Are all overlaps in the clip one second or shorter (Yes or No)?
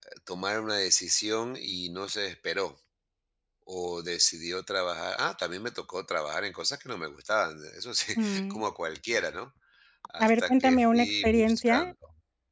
No